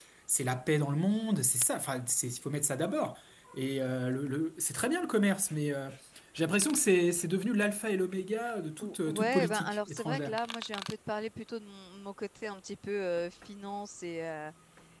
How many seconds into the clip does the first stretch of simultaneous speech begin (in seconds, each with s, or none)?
8.8 s